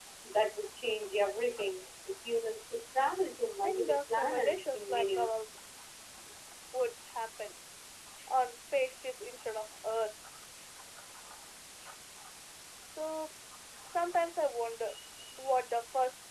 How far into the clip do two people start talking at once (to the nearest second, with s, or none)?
4 s